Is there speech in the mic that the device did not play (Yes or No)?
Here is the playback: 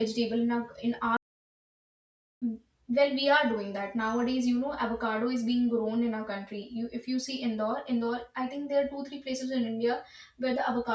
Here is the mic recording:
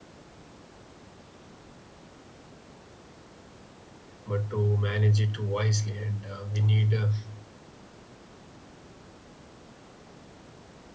Yes